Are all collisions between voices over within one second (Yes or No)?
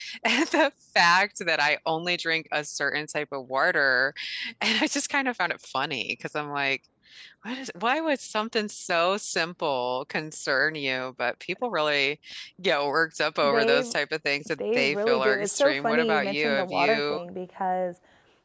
No